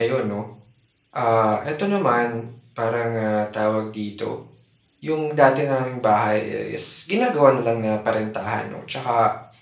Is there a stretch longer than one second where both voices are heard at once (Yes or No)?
No